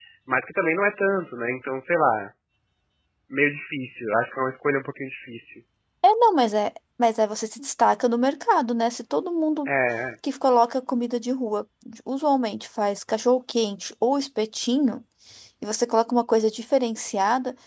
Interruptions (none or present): none